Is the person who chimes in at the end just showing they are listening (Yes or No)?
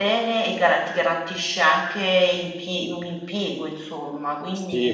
No